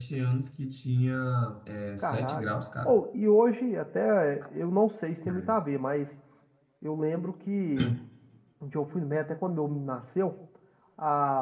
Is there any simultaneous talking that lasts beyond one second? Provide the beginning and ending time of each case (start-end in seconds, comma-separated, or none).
none